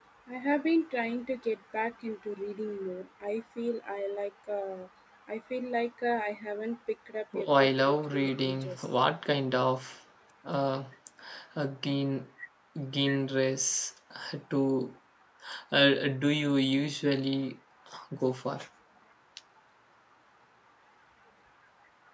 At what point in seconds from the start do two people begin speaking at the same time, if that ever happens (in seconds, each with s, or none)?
7.3 s